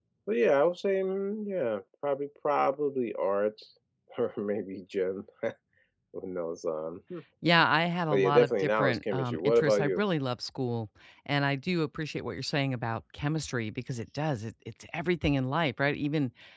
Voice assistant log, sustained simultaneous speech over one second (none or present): present